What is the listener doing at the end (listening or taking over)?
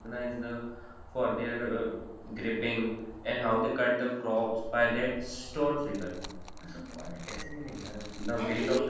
taking over